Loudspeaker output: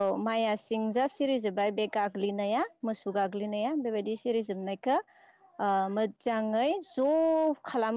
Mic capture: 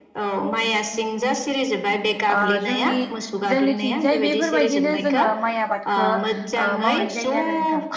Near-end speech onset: 2.4 s

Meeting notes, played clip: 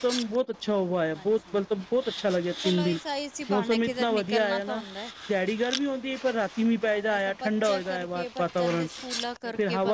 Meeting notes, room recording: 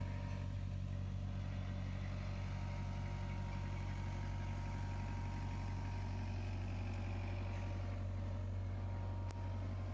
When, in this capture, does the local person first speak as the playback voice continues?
none

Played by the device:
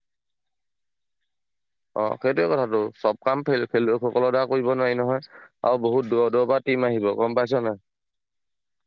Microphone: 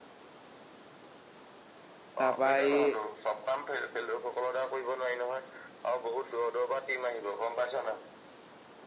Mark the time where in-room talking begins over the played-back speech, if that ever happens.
2.2 s

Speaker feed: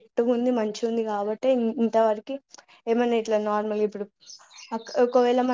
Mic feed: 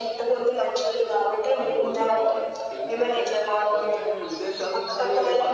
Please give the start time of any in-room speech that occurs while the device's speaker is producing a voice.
1.6 s

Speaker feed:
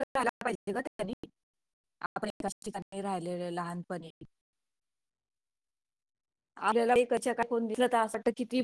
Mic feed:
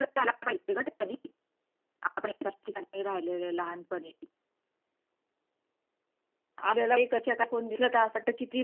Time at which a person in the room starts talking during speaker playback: none

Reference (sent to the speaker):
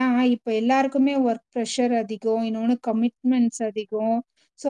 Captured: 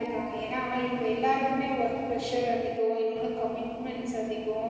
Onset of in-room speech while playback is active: none

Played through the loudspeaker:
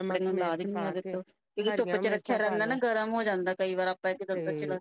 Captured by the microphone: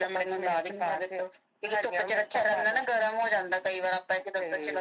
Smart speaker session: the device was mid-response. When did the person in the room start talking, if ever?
none

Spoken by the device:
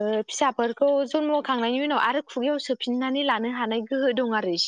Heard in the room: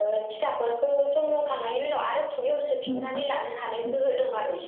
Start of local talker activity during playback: 2.9 s

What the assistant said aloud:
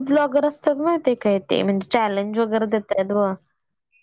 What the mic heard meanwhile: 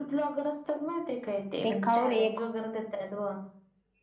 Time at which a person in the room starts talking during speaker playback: 1.6 s

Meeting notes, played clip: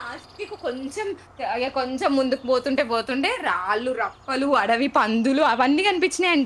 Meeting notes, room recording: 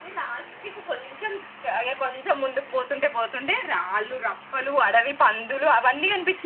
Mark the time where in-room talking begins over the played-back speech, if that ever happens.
none

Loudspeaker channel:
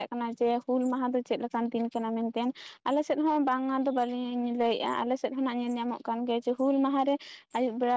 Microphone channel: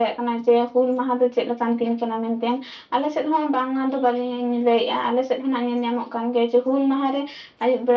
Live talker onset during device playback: none

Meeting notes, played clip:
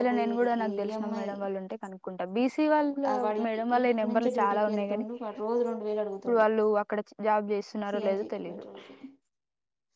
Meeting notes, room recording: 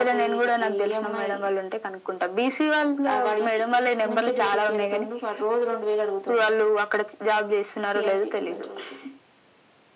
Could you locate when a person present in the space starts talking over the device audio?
none

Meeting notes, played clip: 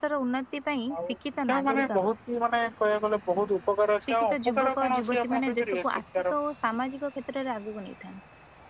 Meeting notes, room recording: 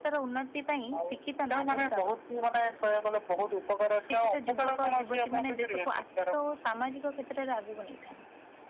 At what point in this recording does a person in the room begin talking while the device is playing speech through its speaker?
none

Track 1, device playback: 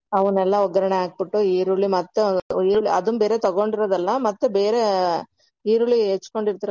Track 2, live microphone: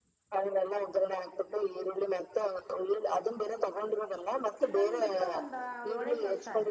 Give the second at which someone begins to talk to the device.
4.6 s

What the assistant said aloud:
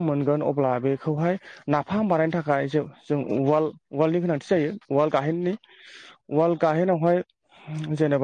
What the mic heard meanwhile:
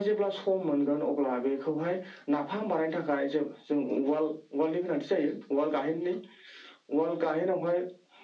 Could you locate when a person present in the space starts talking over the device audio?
none

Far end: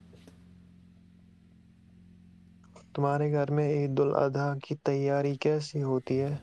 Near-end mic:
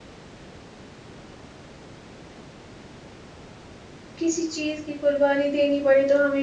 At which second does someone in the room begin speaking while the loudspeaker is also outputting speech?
4.2 s

